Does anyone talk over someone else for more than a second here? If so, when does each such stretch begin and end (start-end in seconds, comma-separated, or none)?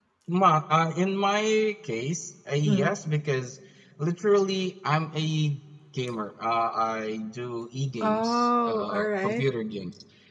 8.0-9.4